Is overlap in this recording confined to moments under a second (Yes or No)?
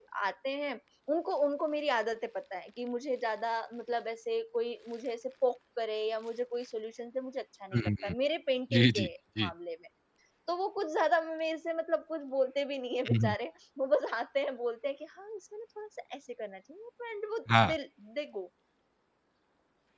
Yes